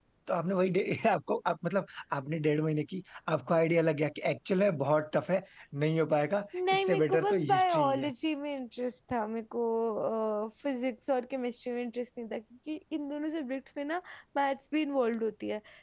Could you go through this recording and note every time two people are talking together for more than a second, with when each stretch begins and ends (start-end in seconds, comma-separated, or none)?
6.8-8.1